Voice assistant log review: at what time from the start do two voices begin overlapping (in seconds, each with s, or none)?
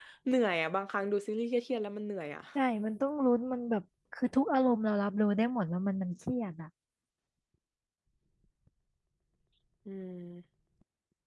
none